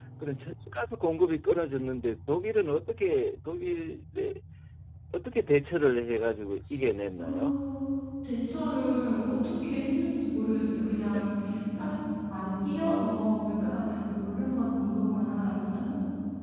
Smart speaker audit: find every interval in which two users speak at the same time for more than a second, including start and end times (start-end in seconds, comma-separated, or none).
none